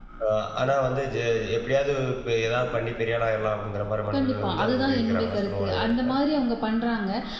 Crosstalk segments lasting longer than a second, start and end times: 4.1-6.0

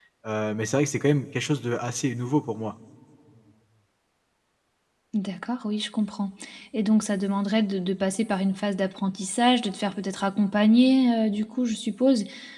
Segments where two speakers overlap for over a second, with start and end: none

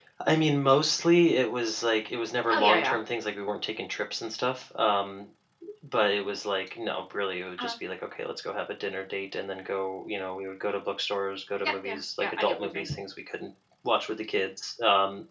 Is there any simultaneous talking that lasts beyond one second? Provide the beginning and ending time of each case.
11.7-12.9

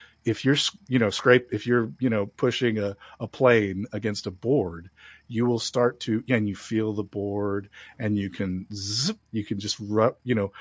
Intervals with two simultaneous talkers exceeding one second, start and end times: none

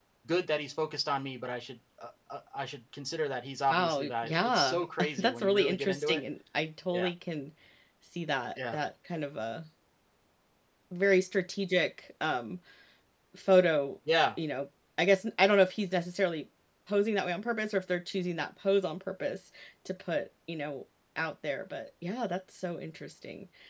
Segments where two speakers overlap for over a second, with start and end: 3.7-6.2

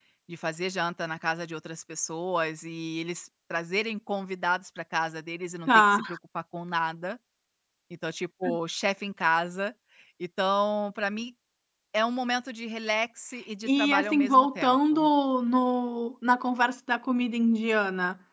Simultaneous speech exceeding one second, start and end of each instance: 13.7-15.1

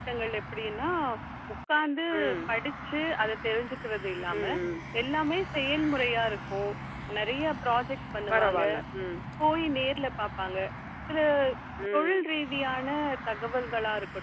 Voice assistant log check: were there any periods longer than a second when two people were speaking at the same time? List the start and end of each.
none

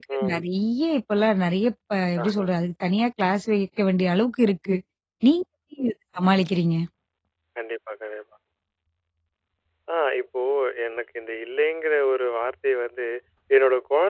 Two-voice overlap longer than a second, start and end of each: none

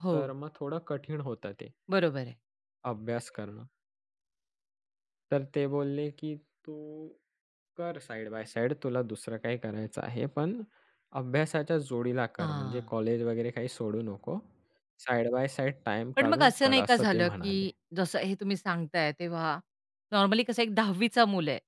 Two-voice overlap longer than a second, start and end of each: 16.2-17.7

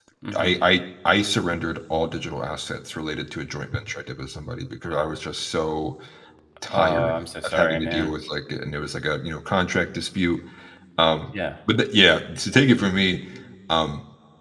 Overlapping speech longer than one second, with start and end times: 6.7-8.1

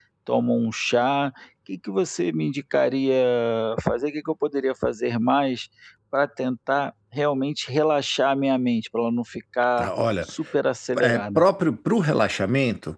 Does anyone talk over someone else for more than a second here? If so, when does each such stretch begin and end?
none

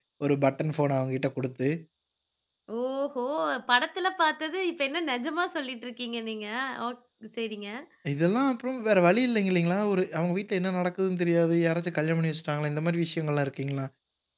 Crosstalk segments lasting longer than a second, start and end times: none

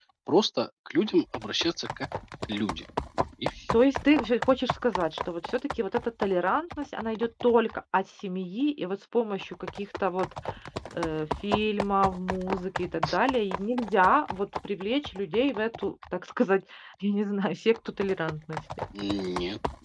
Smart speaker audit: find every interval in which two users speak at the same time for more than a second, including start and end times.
none

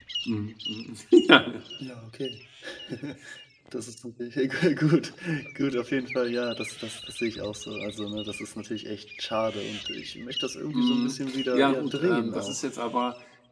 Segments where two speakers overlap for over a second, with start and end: 10.7-12.6

